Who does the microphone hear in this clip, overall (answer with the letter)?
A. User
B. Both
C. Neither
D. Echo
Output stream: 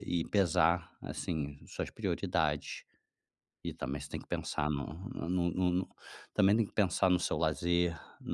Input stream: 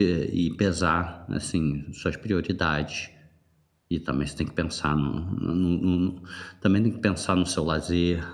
D